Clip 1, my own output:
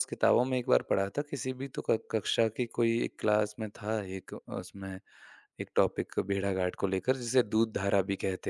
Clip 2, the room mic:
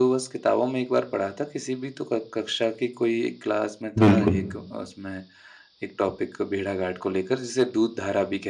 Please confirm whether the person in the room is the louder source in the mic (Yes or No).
Yes